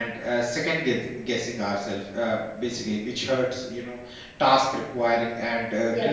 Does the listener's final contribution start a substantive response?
No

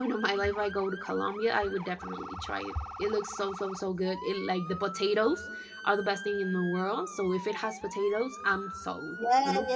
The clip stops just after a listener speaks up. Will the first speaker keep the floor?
No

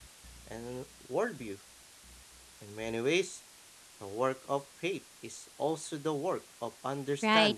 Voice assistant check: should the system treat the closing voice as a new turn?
Yes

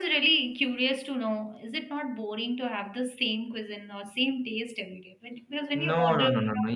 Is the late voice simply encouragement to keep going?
No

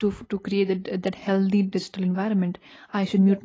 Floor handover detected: No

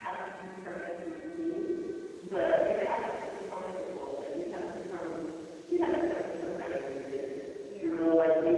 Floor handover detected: No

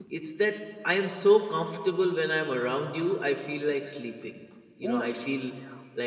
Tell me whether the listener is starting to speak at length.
No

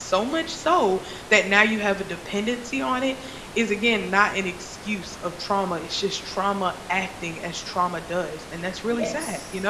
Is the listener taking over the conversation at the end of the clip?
Yes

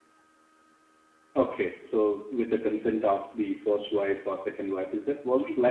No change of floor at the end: No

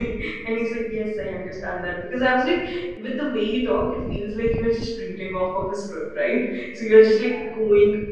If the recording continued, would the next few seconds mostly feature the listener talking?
No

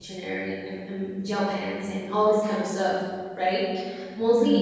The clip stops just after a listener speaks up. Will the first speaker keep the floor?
Yes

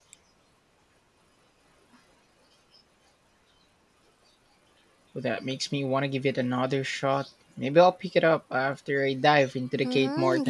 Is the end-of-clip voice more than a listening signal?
Yes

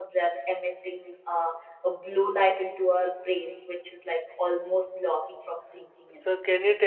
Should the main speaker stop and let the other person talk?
Yes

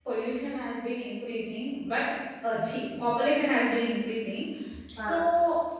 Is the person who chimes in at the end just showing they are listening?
Yes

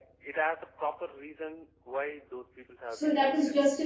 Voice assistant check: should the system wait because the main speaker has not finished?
No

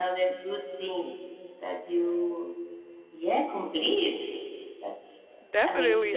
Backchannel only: No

